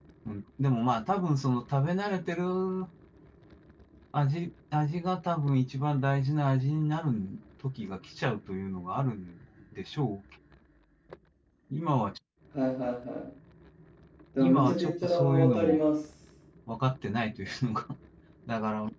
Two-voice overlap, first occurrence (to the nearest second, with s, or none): 14 s